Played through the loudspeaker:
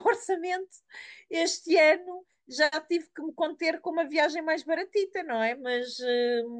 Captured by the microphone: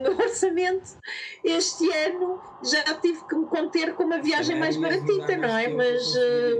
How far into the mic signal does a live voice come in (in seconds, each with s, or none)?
4.3 s